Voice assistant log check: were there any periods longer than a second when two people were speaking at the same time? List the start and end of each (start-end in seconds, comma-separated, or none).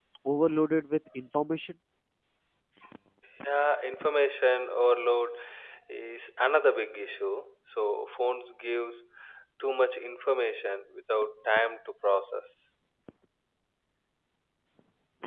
none